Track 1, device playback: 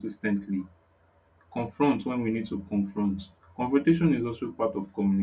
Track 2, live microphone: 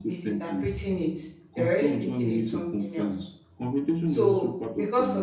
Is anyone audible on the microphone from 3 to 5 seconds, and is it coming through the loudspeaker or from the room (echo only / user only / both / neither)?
both